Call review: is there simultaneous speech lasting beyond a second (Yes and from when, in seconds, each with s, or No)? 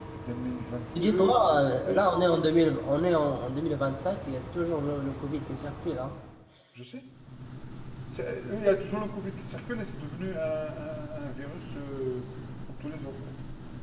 Yes, from 1.0 s